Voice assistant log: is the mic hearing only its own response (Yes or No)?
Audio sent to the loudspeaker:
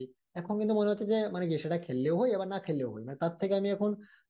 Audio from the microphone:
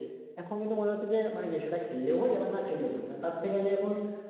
Yes